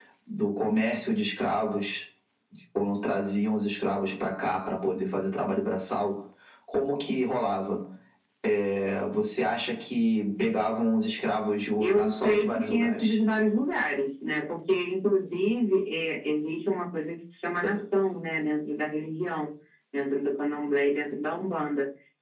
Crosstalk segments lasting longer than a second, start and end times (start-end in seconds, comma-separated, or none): 11.8-13.2